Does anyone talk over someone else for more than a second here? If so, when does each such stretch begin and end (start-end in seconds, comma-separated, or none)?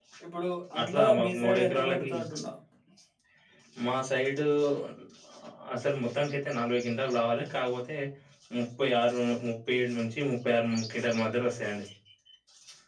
0.8-2.1